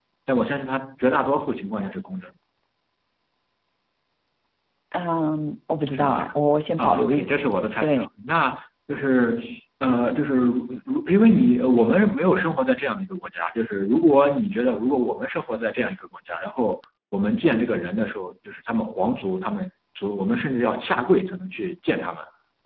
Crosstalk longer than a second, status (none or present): none